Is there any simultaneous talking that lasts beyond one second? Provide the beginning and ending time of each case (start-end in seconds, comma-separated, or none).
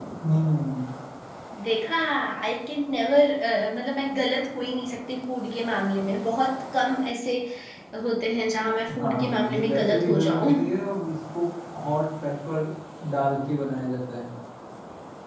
9.0-10.5